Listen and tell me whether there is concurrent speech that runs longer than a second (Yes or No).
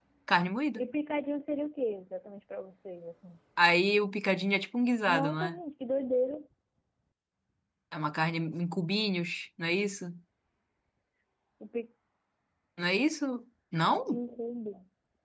No